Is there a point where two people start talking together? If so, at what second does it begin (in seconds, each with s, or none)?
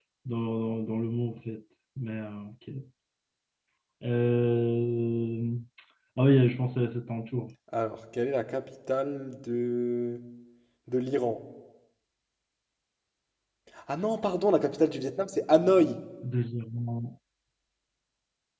none